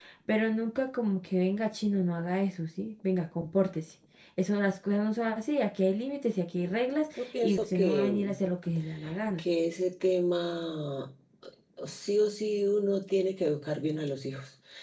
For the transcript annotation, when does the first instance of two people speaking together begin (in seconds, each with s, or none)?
7.2 s